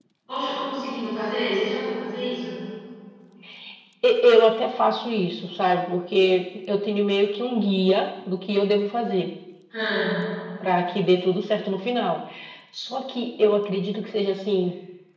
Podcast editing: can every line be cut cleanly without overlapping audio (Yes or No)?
Yes